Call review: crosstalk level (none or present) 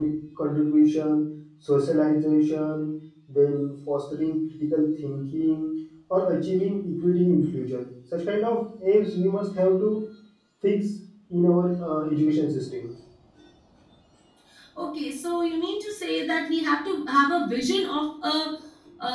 none